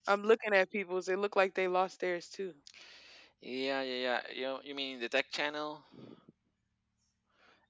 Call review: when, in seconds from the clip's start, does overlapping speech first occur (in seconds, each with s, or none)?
none